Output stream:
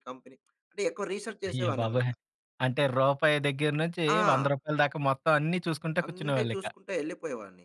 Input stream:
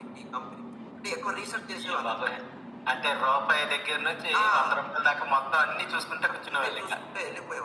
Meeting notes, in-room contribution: none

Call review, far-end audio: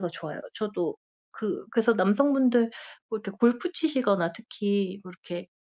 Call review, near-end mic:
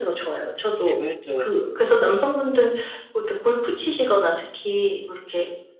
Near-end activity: present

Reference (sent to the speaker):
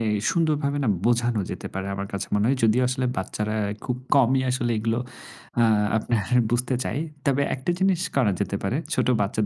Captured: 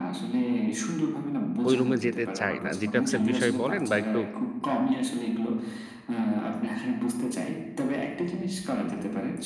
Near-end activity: present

